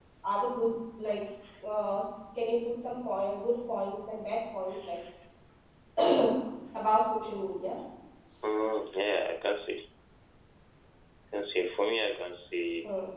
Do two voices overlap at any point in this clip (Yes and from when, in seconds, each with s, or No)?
No